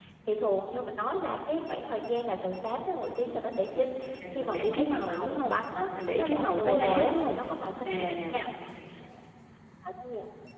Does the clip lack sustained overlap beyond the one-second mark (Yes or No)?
No